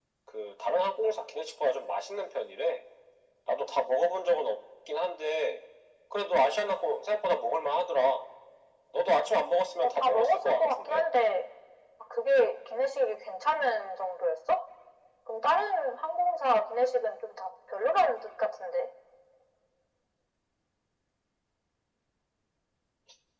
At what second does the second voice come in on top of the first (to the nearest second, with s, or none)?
10 s